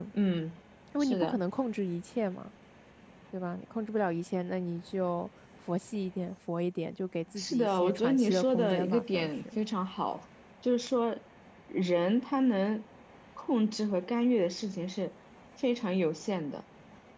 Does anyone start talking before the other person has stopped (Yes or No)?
Yes